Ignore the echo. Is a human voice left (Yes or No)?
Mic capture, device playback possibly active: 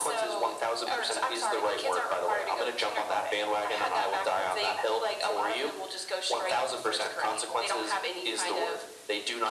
No